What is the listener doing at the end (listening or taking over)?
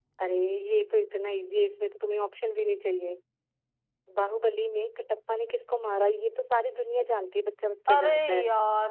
taking over